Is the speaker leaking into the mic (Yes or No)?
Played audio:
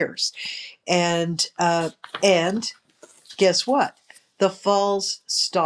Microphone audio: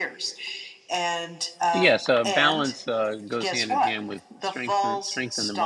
Yes